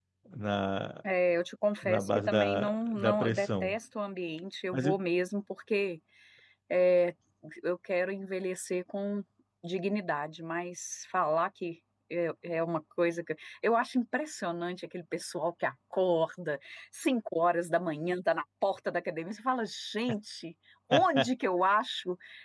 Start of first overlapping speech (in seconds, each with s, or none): 1.8 s